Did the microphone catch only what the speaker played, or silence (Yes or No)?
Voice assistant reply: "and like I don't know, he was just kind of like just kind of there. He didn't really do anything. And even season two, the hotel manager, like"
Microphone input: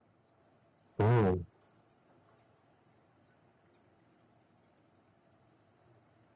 No